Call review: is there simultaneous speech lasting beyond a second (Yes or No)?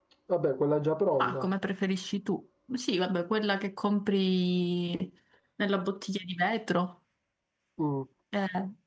No